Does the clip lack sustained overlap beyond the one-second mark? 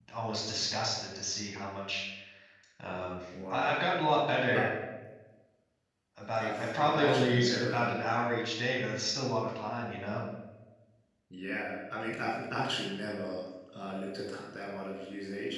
No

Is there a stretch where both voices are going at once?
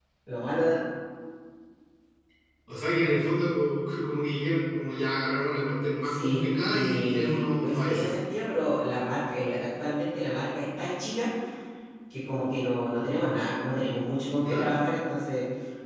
Yes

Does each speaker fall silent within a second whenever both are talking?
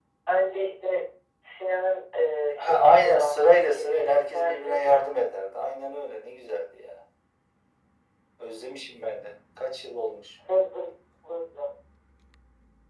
No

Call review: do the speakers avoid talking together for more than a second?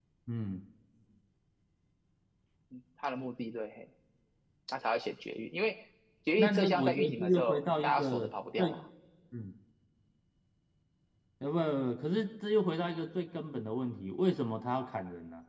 No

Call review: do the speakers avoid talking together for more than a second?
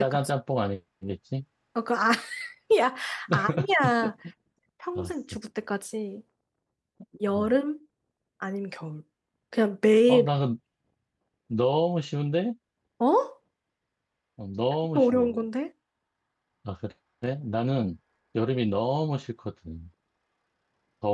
Yes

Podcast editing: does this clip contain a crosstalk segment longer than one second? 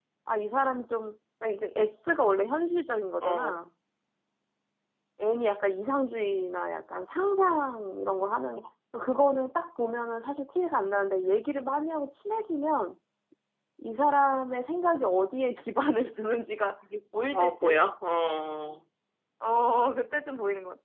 No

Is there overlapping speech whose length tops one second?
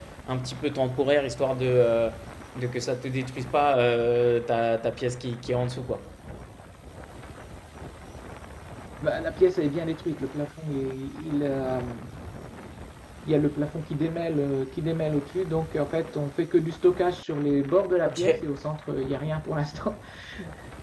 No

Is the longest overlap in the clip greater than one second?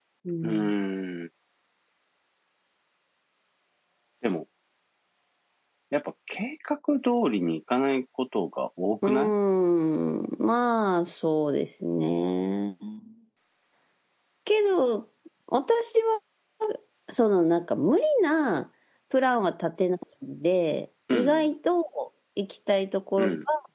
No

